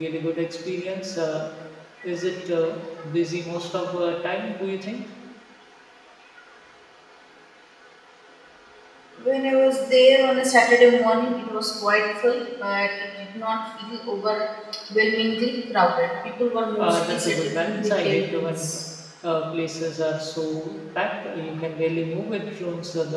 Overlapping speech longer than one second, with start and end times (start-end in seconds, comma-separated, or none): 16.8-18.6